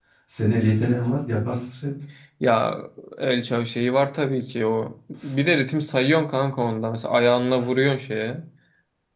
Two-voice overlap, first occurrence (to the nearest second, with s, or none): none